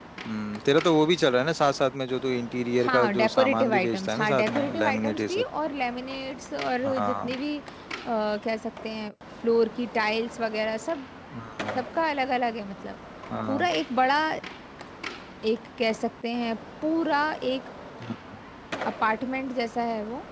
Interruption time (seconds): 2.8 s

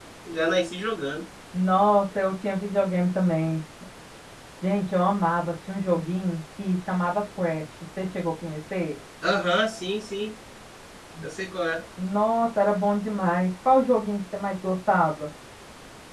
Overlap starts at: none

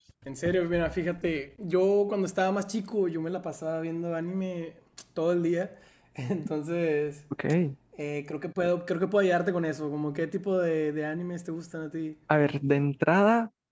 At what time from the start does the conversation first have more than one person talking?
none

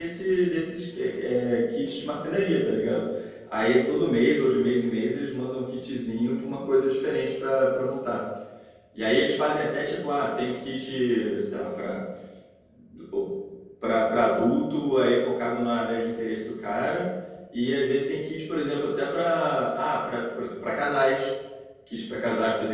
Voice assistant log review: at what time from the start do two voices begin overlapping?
none

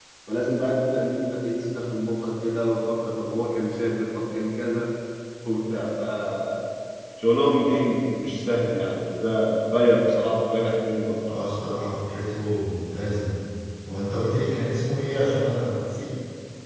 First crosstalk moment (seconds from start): none

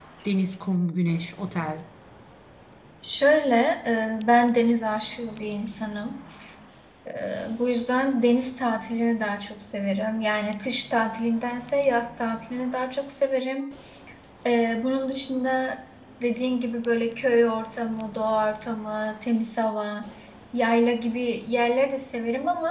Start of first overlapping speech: none

